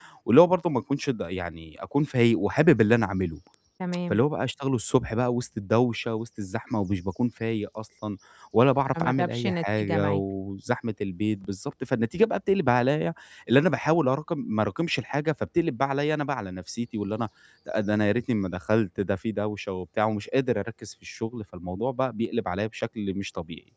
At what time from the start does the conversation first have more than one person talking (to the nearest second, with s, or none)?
9 s